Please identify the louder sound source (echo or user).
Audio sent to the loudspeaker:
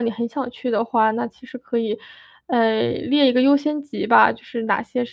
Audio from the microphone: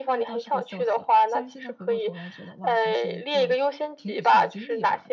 echo